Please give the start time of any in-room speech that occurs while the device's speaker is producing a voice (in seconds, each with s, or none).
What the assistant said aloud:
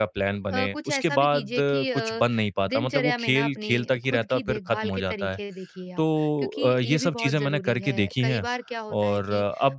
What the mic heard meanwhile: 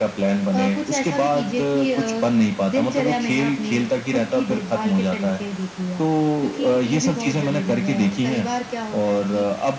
none